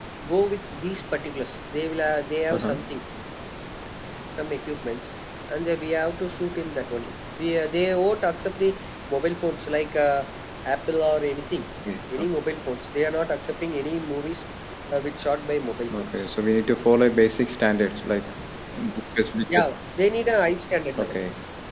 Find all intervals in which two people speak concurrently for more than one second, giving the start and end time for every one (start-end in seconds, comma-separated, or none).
none